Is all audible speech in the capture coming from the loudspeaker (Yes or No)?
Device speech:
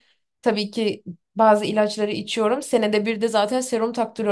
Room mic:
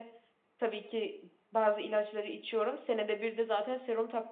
Yes